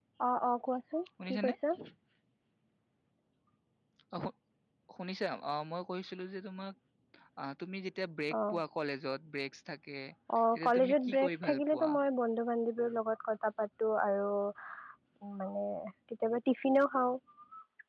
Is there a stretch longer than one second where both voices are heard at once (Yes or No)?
Yes